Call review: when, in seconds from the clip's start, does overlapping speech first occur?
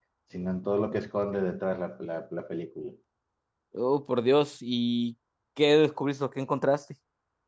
none

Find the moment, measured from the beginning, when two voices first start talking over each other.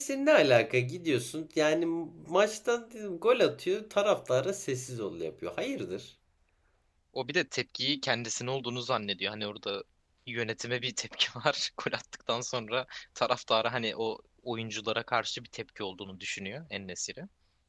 none

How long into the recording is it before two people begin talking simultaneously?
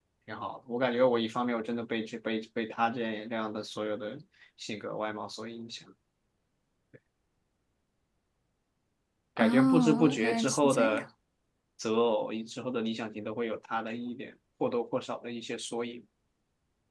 9.4 s

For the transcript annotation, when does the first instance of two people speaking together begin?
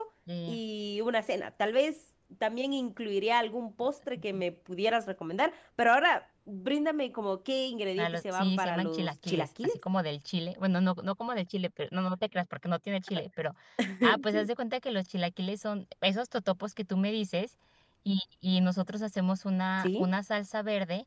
8.0 s

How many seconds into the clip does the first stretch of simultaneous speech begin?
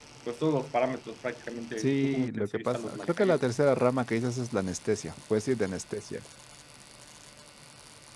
1.8 s

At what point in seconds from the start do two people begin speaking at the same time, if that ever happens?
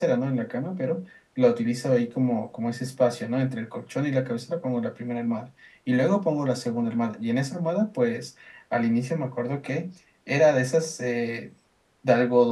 none

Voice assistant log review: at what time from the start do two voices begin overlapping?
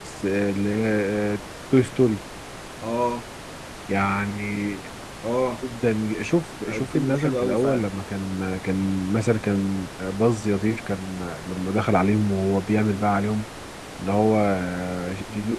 6.7 s

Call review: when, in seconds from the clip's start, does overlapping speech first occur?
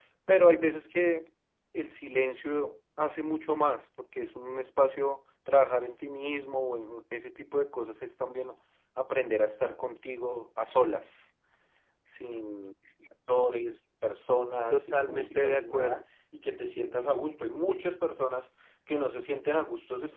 14.7 s

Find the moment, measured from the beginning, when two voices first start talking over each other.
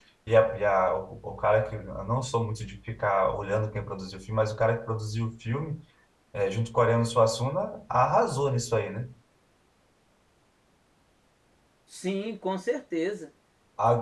none

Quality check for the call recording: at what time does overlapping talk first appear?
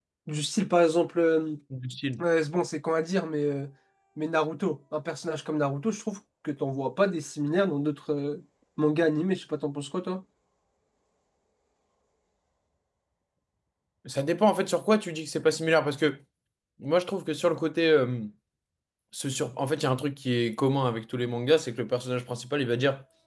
none

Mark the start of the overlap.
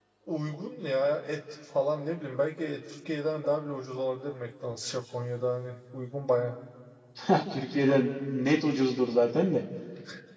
none

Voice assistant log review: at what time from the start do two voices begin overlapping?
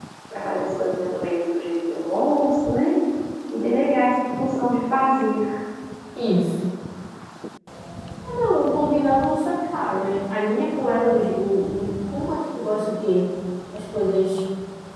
none

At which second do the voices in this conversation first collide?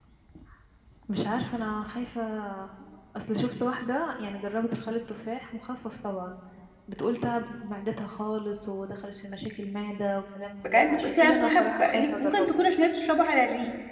10.6 s

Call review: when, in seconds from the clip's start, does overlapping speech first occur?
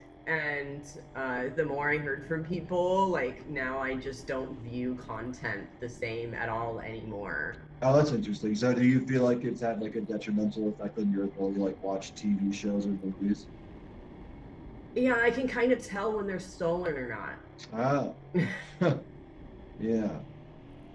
none

